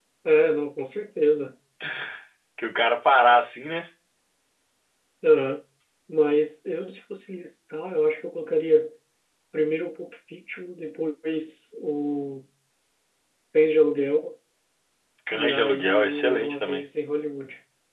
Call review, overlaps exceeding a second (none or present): present